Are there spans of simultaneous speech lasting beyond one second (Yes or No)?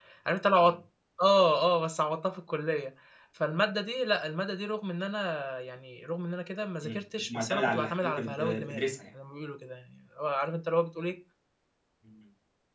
Yes